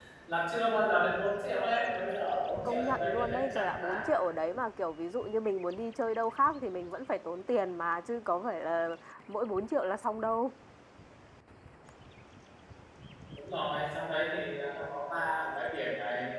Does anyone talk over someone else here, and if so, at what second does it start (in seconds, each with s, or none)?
2.6 s